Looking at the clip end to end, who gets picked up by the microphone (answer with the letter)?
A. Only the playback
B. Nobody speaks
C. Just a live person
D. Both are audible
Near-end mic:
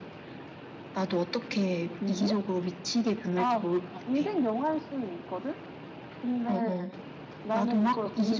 A